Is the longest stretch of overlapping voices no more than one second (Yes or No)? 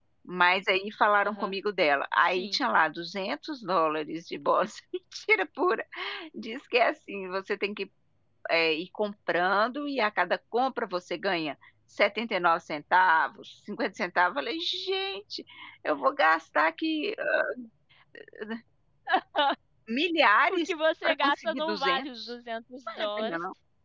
No